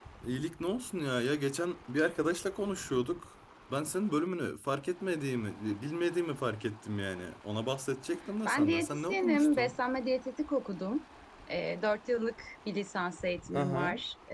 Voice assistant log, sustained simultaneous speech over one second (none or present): present